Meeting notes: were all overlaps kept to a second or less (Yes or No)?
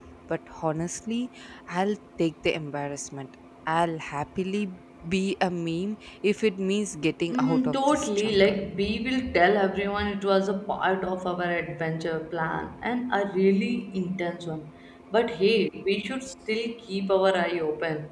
No